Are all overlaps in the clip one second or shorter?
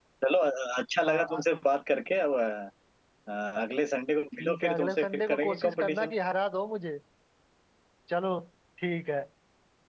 No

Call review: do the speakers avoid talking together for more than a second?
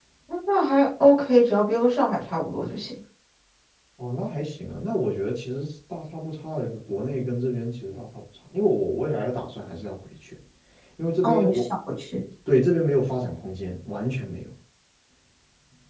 Yes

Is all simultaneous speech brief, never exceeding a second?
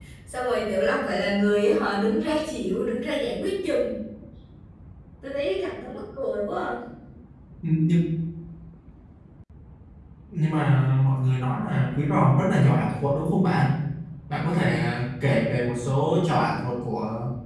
Yes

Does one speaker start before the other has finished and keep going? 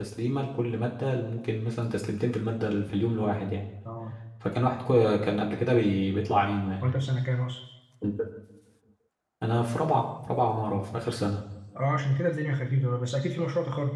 No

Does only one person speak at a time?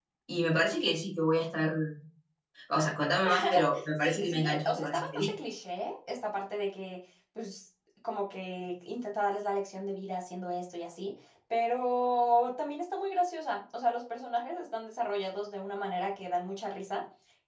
No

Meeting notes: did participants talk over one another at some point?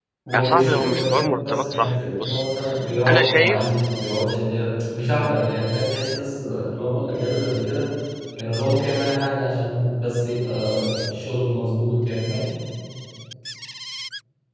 Yes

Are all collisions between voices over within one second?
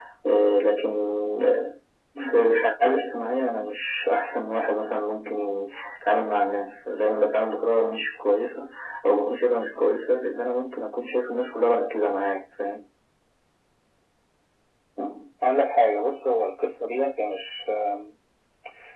Yes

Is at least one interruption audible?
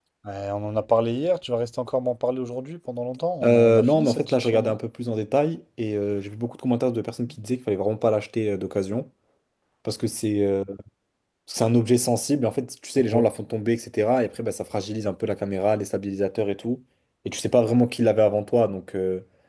Yes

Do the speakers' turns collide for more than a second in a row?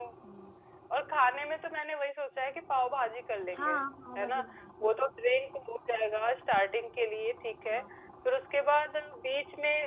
No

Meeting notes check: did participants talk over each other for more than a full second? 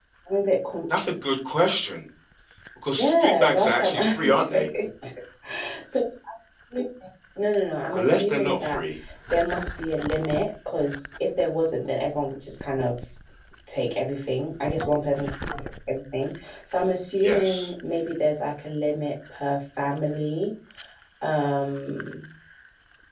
Yes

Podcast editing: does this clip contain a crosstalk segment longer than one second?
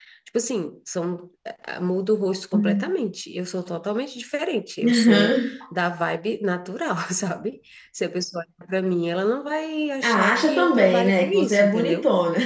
Yes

